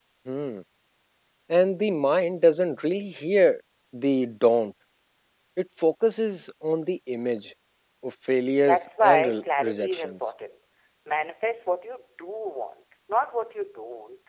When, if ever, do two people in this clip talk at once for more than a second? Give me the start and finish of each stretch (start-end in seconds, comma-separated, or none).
8.7-10.3